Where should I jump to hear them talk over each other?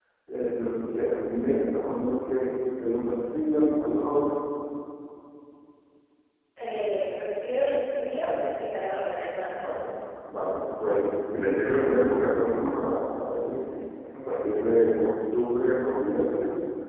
none

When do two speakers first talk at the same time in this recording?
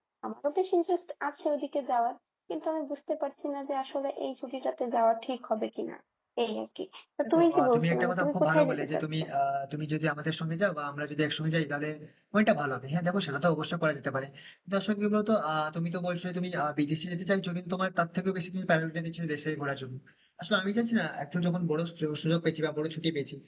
7.2 s

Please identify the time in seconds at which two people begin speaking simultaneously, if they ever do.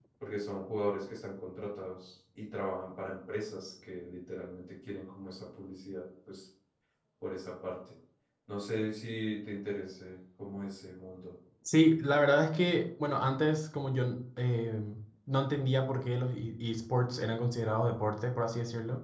none

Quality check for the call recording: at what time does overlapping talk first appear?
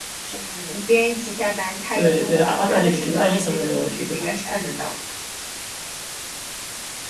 1.9 s

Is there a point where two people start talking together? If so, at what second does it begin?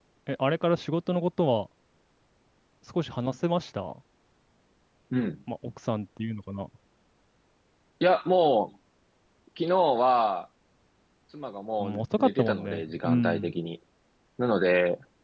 11.8 s

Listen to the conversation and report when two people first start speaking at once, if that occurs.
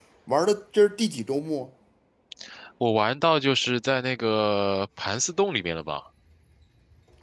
none

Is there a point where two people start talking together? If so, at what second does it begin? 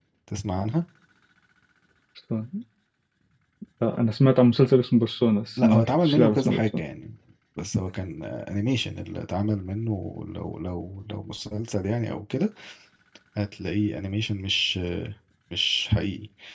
5.6 s

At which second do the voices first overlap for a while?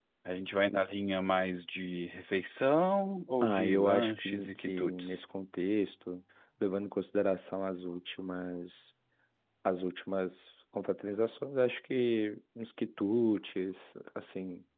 3.4 s

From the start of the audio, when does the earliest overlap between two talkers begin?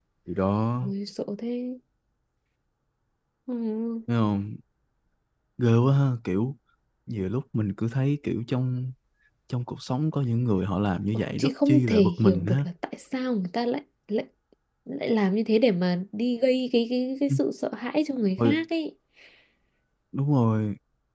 11.1 s

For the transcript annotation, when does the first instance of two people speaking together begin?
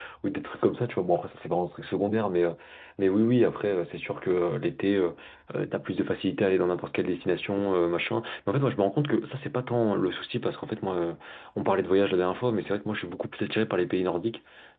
none

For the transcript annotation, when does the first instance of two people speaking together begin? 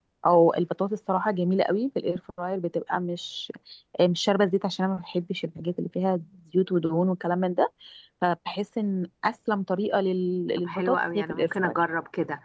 10.6 s

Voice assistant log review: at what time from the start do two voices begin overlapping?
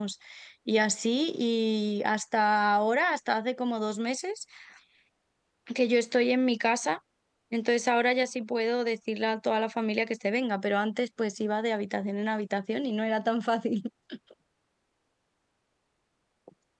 none

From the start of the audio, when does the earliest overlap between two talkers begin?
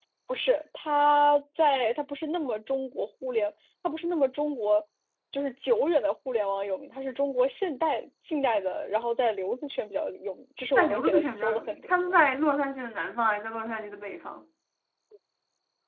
10.8 s

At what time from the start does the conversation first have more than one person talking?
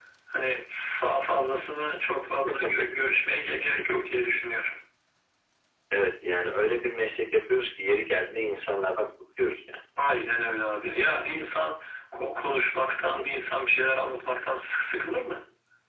none

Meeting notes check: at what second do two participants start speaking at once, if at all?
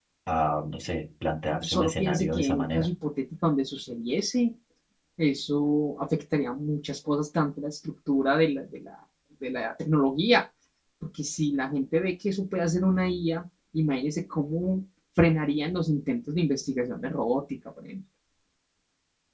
1.5 s

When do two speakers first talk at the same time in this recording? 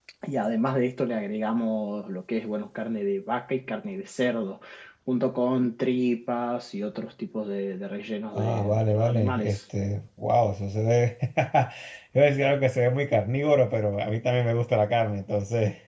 8.3 s

